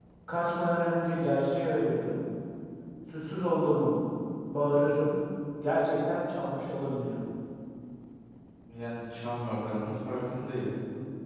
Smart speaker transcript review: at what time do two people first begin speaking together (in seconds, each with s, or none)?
none